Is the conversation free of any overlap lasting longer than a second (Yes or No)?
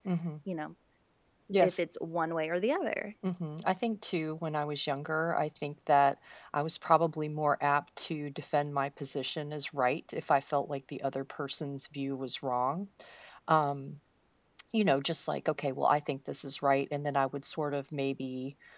Yes